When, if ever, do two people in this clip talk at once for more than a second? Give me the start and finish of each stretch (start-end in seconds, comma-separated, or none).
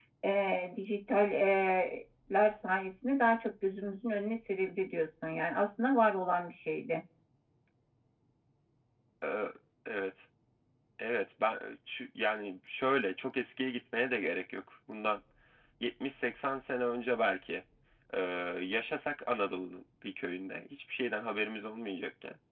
none